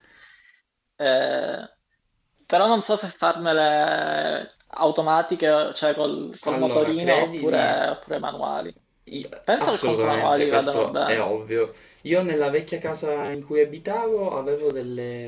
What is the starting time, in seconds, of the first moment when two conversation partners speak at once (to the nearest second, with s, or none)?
6 s